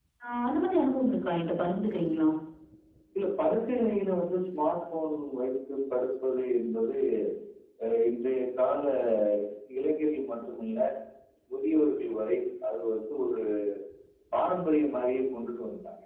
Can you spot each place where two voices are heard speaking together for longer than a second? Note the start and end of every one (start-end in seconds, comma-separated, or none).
none